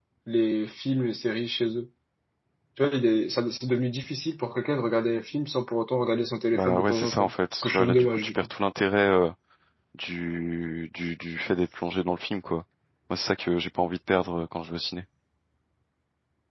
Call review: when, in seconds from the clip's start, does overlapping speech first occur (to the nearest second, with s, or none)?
7 s